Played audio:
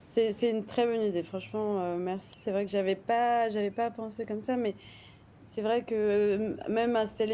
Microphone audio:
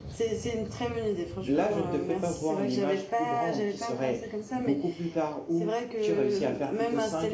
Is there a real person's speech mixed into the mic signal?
Yes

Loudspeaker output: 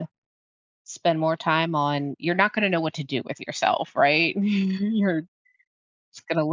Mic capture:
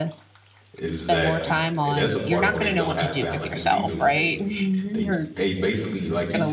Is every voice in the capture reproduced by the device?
No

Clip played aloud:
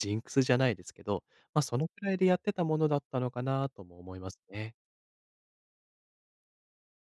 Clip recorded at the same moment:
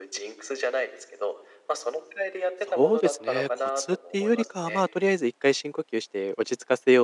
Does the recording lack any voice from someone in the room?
No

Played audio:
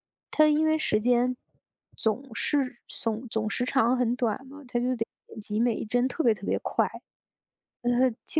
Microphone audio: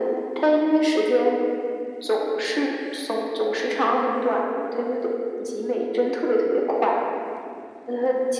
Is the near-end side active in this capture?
No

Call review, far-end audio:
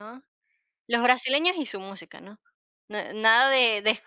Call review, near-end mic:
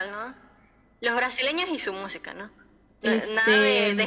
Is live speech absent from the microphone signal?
No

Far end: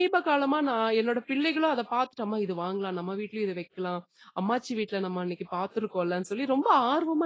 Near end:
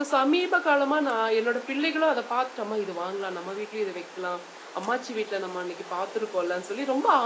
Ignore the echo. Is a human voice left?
No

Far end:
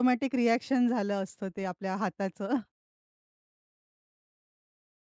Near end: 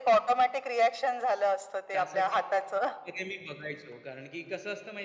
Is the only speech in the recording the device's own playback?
No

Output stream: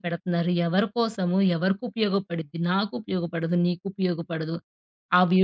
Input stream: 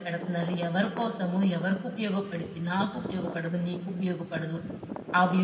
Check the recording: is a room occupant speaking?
No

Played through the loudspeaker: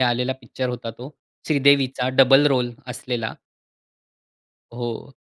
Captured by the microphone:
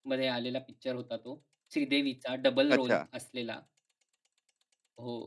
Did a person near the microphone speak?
Yes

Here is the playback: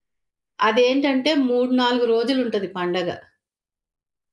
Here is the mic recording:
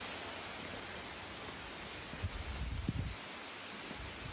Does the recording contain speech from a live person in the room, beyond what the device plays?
No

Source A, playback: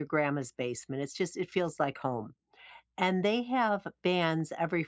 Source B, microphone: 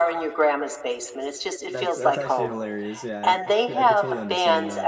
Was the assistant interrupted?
Yes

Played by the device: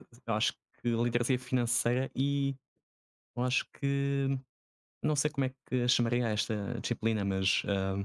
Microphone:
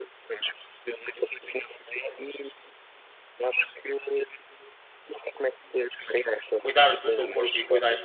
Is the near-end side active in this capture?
Yes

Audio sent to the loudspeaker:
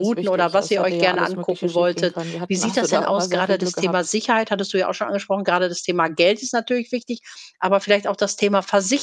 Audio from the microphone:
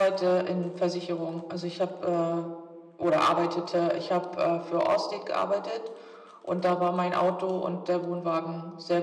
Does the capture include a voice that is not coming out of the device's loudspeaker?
Yes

